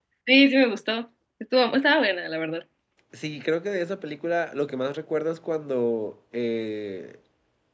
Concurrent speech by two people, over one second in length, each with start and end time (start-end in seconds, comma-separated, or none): none